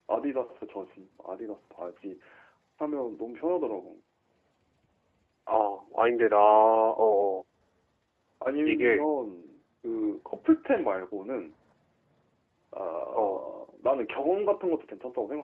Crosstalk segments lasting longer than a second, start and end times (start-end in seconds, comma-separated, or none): none